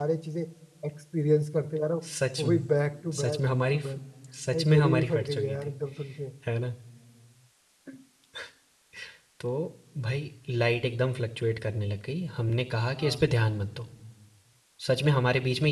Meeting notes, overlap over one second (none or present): present